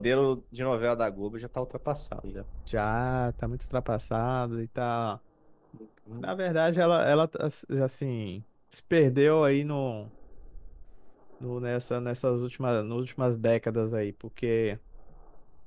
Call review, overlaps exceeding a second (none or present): none